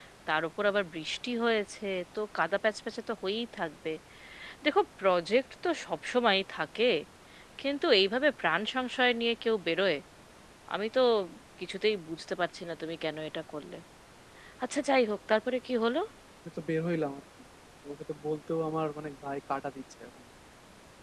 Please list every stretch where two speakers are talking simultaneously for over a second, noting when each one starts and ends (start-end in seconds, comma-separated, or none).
none